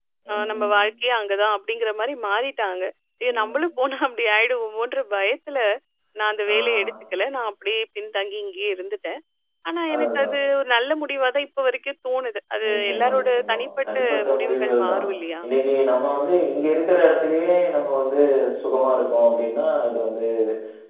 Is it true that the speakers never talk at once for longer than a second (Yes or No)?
No